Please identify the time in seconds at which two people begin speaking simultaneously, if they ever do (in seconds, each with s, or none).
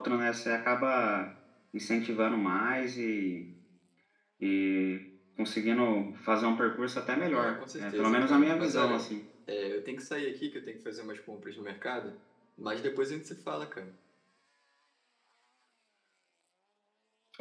7.3 s